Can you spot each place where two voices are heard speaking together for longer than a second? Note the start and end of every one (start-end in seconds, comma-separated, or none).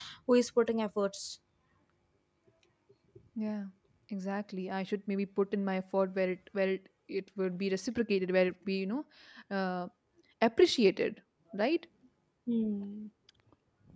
none